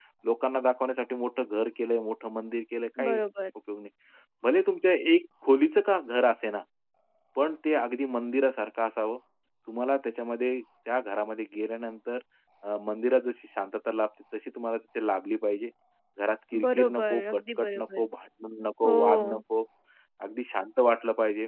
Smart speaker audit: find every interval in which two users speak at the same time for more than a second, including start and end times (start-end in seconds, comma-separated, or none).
16.6-18.0